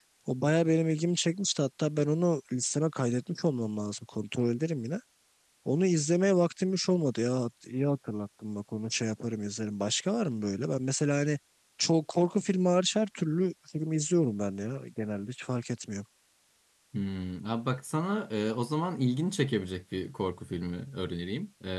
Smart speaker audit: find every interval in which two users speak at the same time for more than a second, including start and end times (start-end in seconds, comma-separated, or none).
none